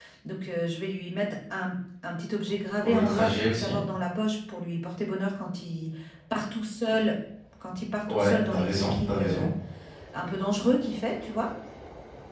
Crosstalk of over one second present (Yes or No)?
Yes